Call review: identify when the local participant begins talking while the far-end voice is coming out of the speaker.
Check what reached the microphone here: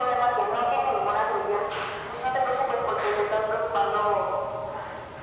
none

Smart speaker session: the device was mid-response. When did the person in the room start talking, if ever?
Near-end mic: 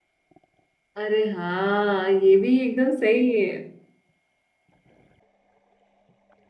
1.0 s

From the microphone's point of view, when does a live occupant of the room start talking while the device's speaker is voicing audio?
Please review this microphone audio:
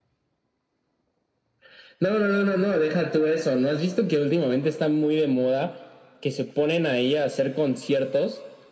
none

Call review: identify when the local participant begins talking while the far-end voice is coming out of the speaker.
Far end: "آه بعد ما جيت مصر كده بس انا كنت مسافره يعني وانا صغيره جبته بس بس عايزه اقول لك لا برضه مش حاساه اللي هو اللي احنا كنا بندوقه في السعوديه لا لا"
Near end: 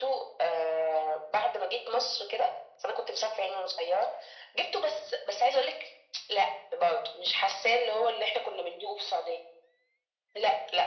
none

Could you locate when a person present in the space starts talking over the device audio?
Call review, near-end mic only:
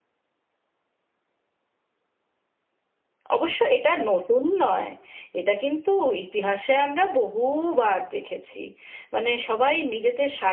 3.4 s

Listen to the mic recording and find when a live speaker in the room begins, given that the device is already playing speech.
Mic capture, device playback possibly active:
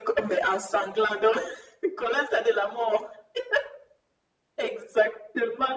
none

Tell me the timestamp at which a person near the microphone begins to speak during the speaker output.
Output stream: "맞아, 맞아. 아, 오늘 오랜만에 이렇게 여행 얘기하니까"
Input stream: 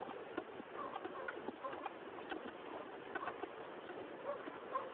none

